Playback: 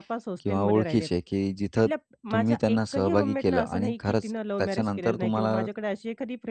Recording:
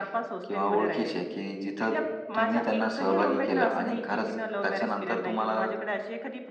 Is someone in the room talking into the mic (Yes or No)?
No